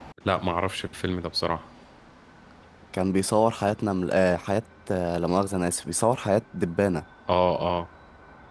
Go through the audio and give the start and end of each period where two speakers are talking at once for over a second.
none

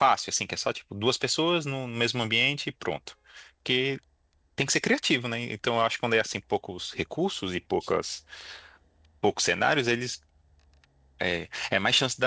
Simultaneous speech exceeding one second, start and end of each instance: none

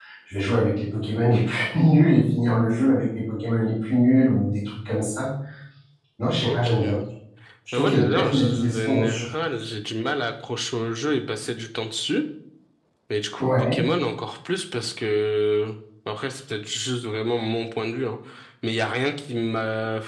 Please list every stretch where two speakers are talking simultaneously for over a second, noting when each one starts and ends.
7.8-9.3

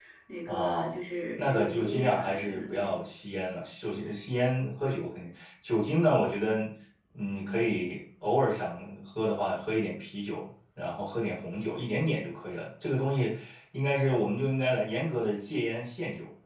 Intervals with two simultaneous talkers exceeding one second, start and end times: 1.4-2.9

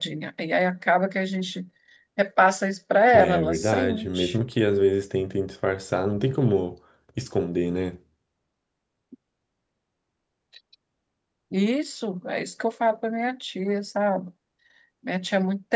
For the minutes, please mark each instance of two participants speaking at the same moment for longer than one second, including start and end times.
3.1-4.4

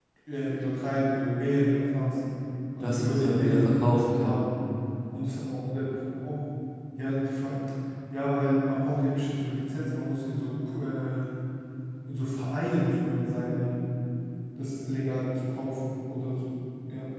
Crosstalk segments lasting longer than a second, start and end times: 2.8-4.4

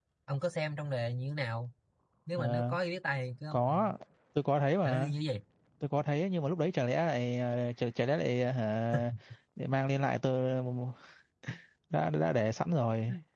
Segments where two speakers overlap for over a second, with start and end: none

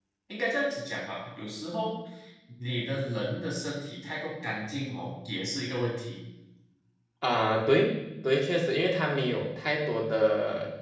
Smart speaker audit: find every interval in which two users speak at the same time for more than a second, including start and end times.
none

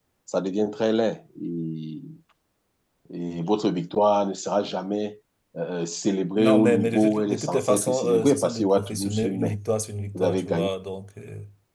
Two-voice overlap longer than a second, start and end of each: 6.4-9.6

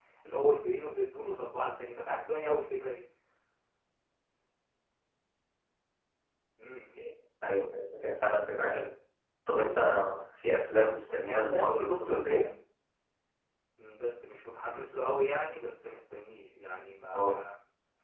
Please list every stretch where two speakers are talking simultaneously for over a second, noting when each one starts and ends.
11.2-12.4

